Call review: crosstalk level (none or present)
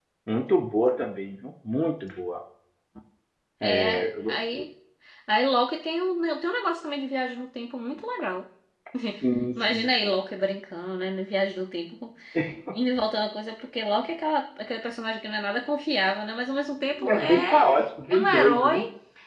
present